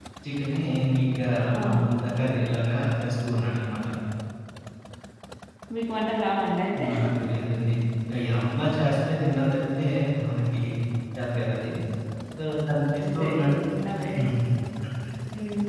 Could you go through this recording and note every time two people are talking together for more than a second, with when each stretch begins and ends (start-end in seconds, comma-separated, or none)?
none